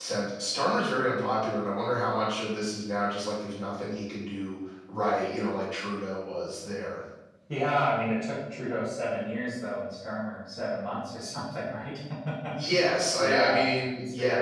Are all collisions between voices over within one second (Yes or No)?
No